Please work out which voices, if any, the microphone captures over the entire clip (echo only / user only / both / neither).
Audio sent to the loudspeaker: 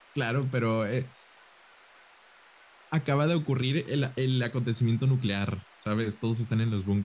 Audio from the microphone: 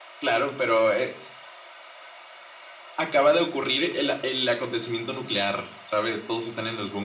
echo only